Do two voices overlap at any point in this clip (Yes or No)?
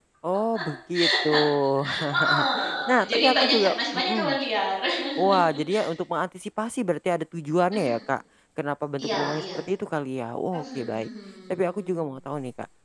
Yes